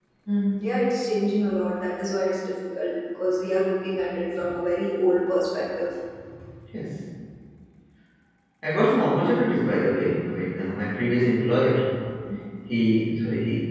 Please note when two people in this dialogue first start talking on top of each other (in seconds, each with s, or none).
none